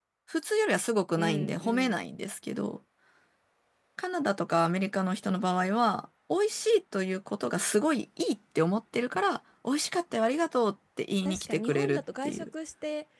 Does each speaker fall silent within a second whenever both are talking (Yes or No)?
No